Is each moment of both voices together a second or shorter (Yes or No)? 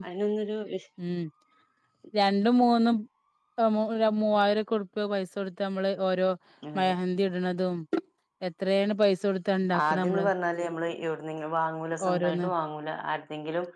Yes